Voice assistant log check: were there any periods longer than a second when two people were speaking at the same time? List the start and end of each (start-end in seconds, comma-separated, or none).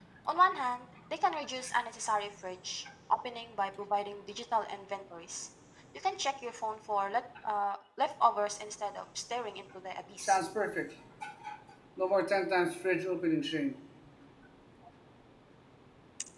none